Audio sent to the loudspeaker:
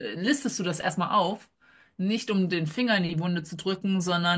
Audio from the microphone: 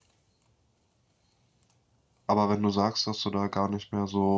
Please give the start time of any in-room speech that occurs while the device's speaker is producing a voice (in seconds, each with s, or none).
2.3 s